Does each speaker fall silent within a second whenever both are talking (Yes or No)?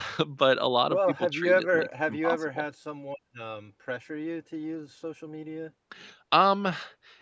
No